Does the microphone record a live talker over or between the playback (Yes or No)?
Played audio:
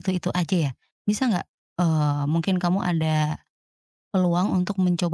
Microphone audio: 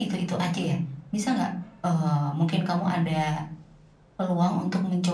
Yes